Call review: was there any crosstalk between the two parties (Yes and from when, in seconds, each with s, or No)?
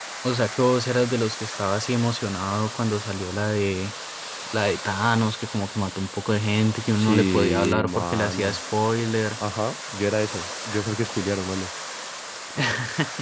Yes, from 6.9 s